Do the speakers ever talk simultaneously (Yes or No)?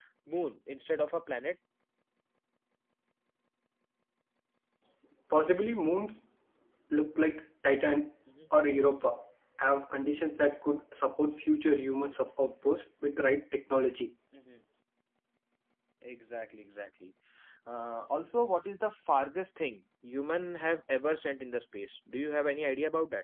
No